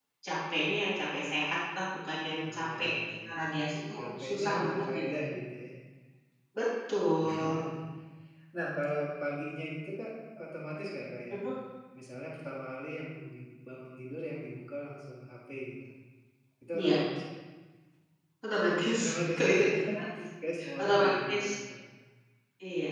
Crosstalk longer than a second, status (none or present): present